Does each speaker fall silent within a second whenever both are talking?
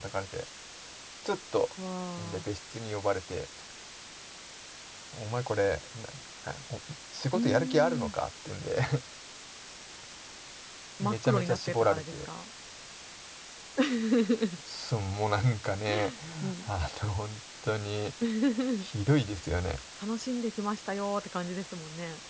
No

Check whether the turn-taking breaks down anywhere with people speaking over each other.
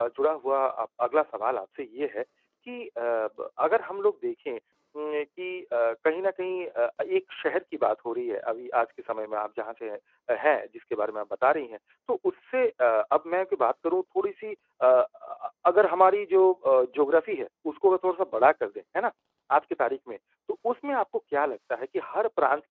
No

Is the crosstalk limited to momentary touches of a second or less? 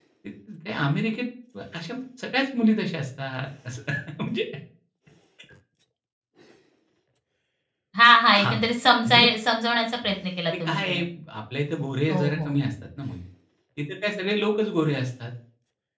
Yes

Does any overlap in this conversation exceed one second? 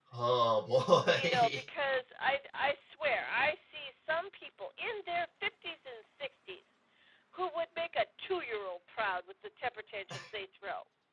No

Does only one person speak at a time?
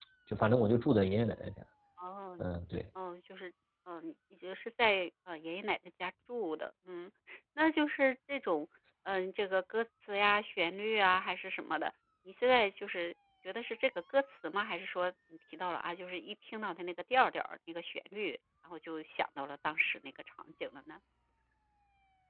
Yes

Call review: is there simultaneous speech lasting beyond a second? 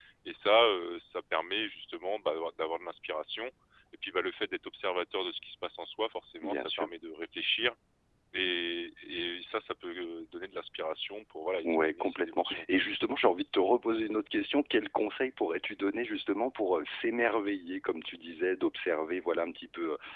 Yes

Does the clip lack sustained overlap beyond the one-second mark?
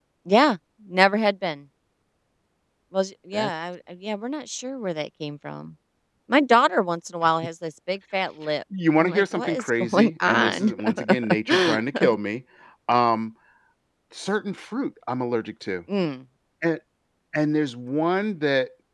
No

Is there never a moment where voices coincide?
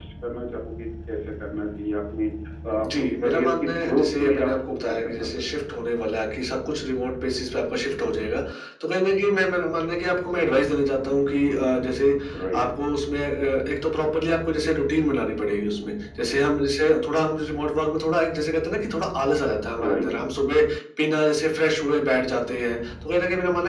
No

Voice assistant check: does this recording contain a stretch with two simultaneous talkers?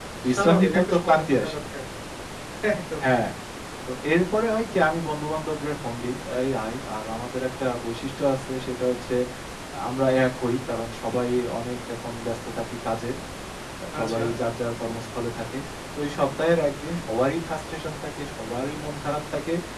Yes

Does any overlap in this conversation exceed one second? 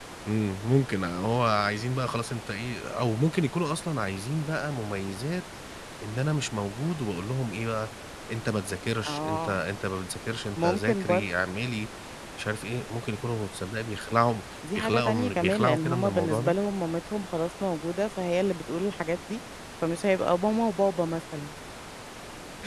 Yes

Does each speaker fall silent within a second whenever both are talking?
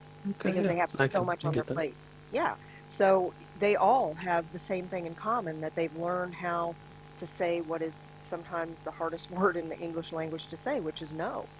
No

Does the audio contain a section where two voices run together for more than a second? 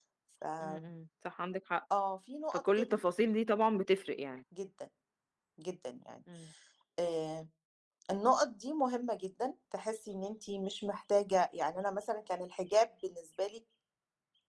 No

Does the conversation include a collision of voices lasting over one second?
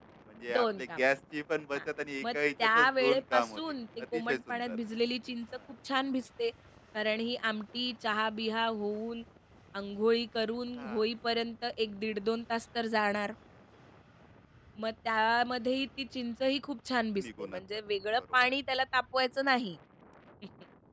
Yes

